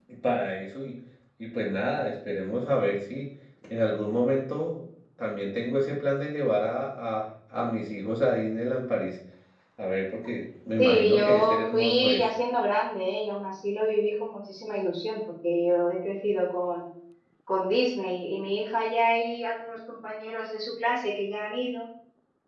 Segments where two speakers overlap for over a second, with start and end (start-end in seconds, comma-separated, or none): 10.8-12.3